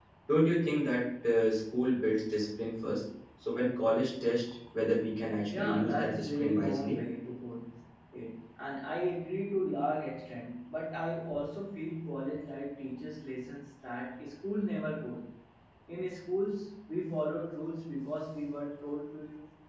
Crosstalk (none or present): present